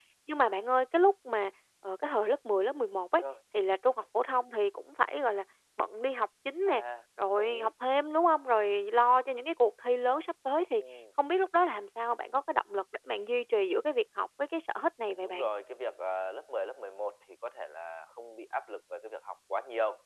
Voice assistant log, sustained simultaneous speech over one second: none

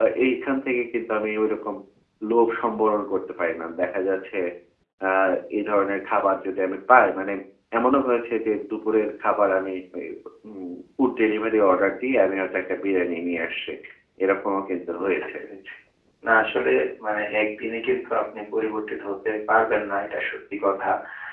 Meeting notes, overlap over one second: none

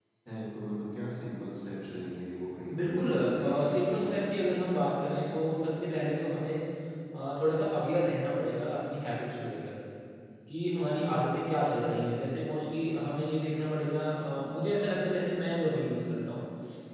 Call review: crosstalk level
present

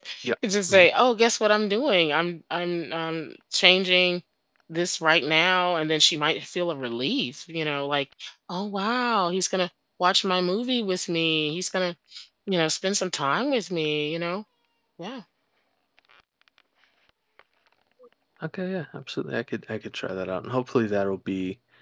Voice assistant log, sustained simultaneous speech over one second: none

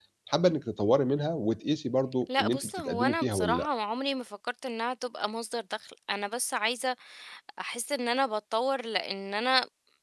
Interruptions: present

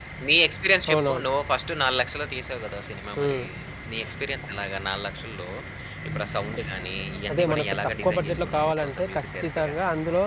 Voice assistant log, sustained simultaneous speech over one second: present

